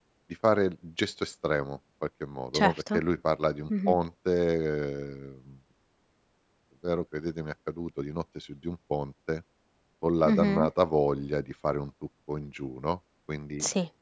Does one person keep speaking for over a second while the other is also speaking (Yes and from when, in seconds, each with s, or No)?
No